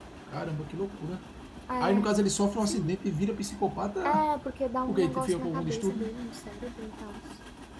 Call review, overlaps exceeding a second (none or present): present